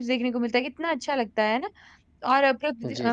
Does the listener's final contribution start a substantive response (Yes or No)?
No